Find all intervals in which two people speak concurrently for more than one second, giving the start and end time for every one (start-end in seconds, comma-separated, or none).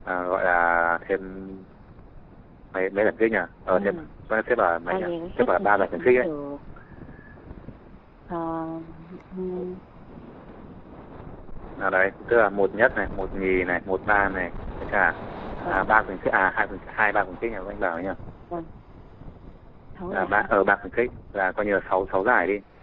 4.9-6.2